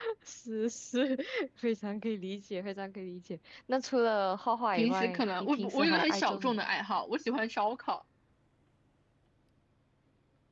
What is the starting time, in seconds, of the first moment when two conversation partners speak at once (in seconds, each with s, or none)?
4.7 s